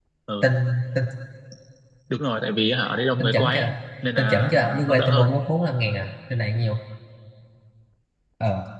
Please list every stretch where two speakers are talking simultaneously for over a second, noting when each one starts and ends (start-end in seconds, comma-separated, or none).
4.2-5.4